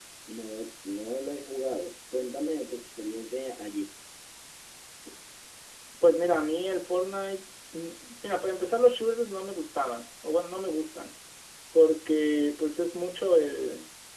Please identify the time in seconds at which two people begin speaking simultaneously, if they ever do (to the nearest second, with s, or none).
none